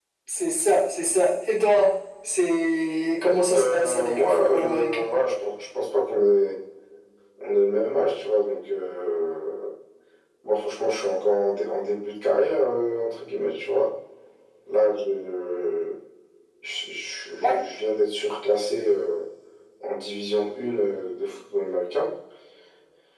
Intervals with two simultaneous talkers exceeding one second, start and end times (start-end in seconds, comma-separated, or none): 3.2-5.1